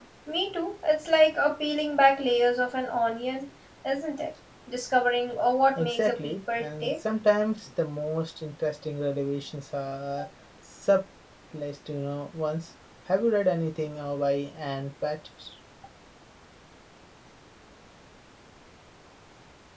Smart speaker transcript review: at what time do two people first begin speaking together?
5.8 s

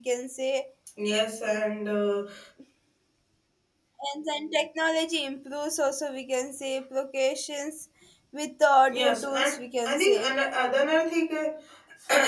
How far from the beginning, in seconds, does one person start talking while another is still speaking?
8.9 s

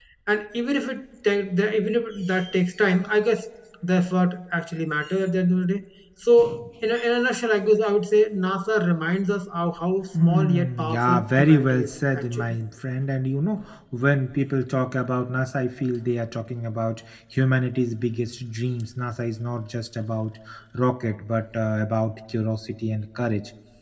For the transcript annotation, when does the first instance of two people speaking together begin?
10.1 s

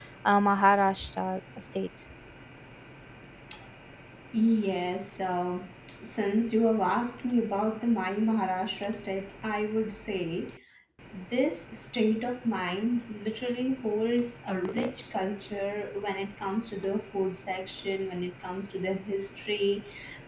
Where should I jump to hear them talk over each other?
none

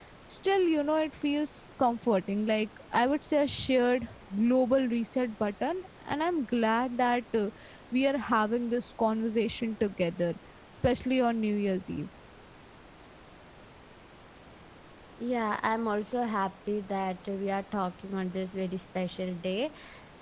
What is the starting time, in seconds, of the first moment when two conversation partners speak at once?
none

